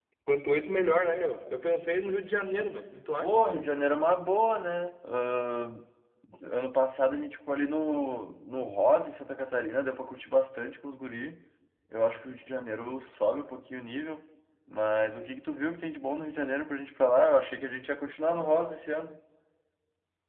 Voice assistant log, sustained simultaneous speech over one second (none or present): none